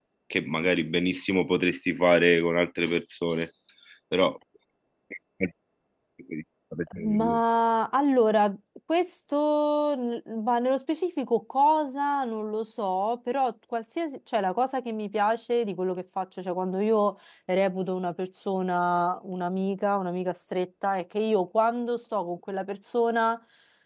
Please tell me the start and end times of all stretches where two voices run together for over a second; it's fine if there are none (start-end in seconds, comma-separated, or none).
none